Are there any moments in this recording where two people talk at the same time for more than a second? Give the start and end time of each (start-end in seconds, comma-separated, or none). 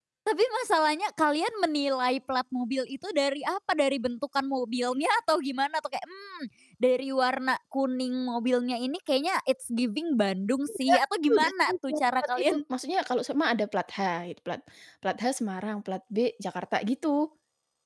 11.3-12.6